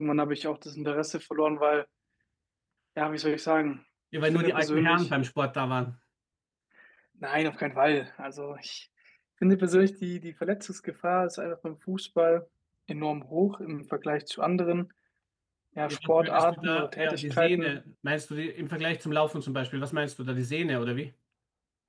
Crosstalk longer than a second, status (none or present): present